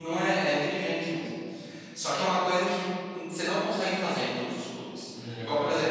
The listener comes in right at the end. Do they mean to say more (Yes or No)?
No